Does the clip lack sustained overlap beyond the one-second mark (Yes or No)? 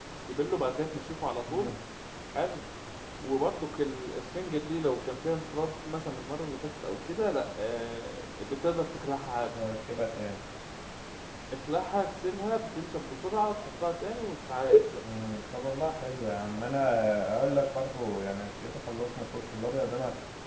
Yes